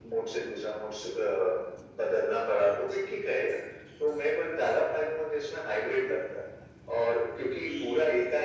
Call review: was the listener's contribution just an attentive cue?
Yes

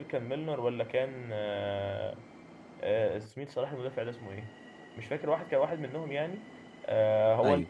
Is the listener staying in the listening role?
Yes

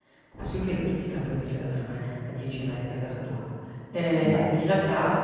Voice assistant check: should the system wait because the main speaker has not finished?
Yes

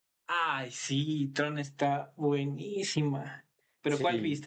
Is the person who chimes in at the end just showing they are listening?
Yes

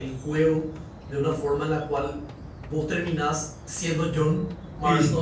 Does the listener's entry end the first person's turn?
No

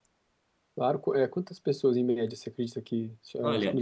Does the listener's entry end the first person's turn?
Yes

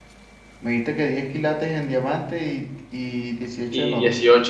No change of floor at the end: No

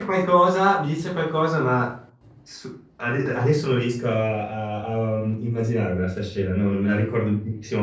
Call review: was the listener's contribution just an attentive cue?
Yes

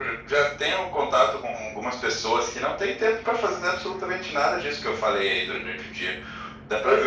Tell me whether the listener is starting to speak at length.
No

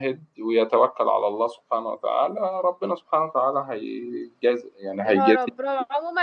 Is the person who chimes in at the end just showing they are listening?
No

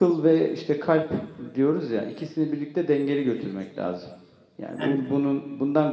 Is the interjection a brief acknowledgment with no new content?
Yes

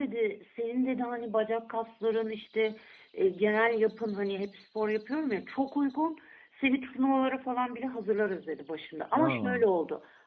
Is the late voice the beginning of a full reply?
No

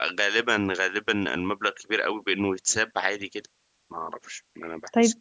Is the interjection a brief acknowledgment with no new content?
No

